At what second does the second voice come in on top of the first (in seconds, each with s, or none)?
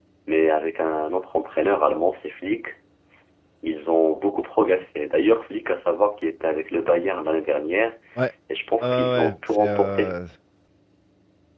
8.8 s